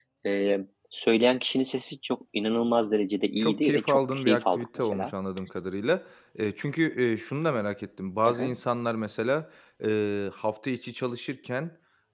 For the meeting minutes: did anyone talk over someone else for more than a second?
Yes, from 3.4 s

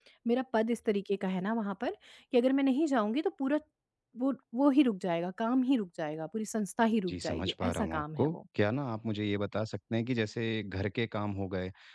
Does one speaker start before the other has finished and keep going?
Yes, from 7.1 s

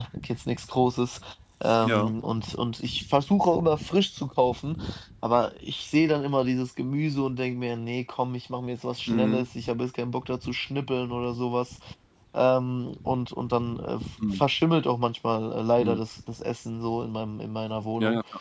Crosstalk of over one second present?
No

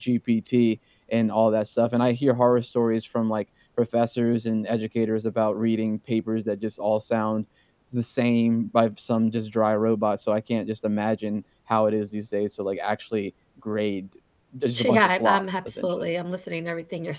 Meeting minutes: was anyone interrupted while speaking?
Yes, from 14.7 s

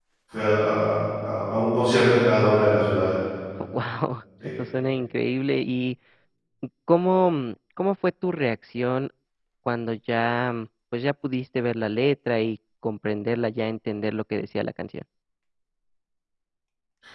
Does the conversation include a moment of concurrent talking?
No

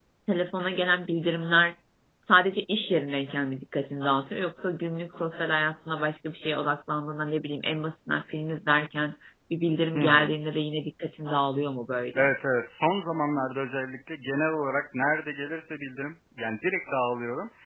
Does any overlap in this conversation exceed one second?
No

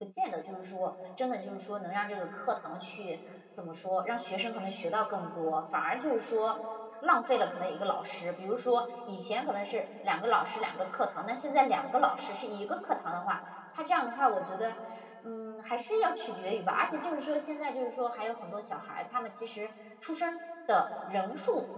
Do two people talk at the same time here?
No

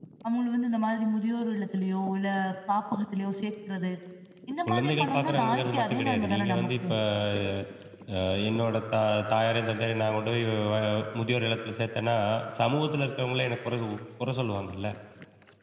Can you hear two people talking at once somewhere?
Yes, from 4.7 s

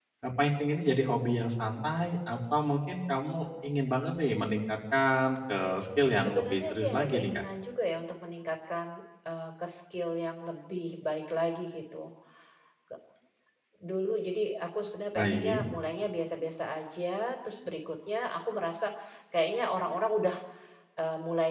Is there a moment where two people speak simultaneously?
Yes, from 6.2 s

